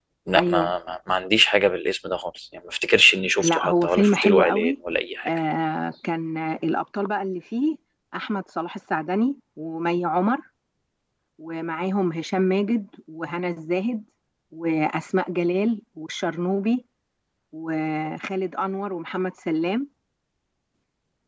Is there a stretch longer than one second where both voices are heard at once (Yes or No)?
Yes